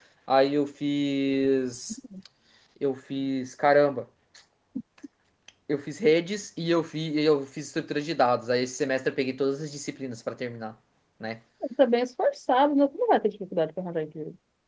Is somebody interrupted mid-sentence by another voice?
No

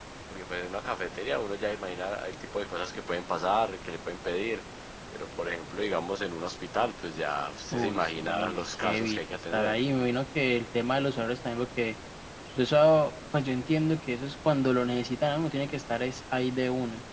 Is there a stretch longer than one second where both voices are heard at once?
Yes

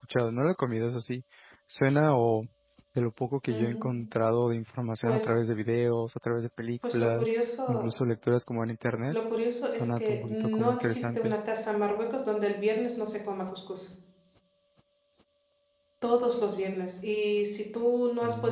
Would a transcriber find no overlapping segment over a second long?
No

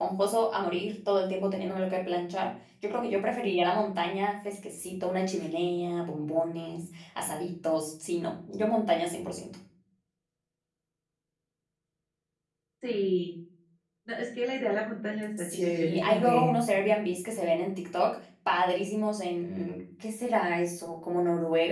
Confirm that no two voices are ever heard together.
No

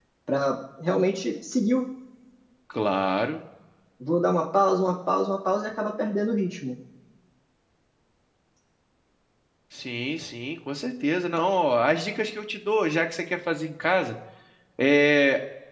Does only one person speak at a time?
Yes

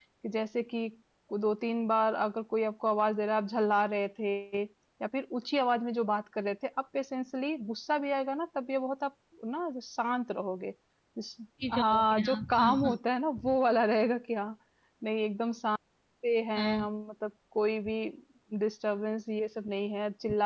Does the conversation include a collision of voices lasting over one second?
Yes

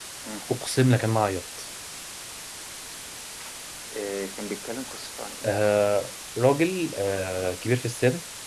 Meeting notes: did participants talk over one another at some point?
No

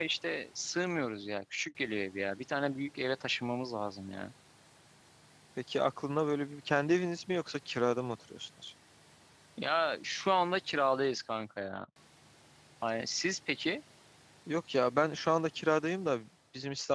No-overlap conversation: Yes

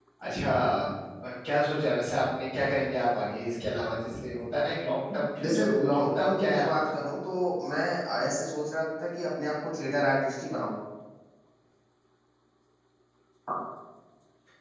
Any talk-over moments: Yes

